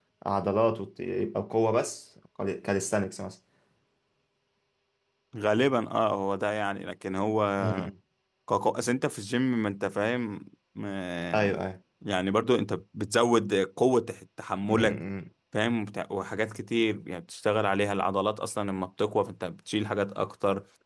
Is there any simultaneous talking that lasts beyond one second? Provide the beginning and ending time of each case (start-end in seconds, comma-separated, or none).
none